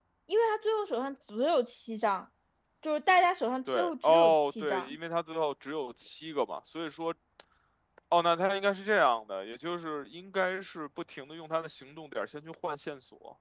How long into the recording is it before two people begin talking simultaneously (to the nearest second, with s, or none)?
4 s